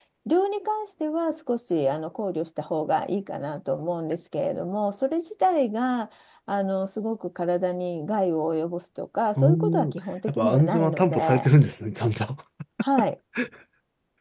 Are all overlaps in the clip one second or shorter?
No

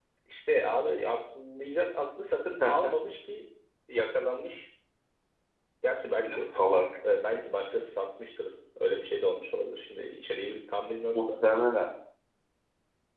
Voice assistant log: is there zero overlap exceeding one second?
Yes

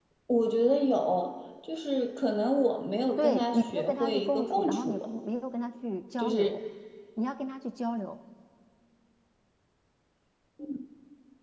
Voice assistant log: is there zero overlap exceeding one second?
No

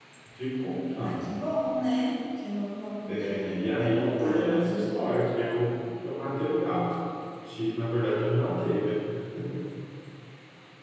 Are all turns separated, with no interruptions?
No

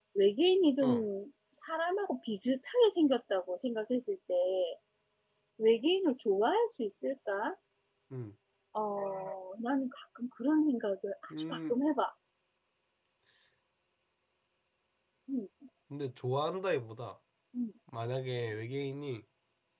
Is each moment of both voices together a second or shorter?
Yes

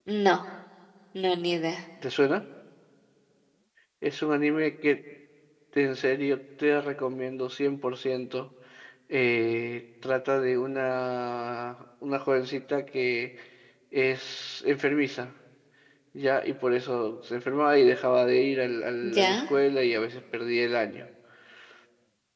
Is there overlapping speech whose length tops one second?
No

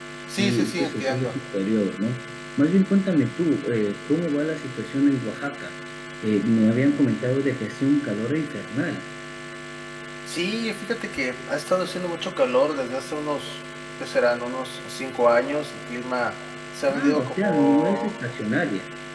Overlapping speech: Yes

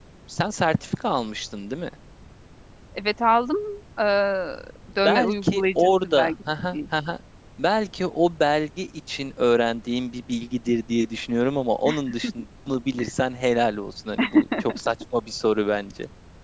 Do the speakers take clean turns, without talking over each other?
No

